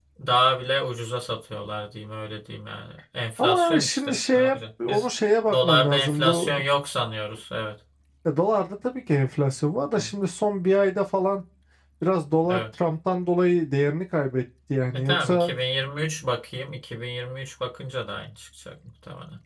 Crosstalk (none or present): present